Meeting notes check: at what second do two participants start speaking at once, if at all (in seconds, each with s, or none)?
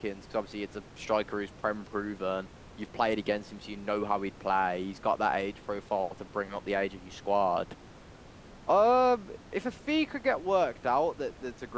none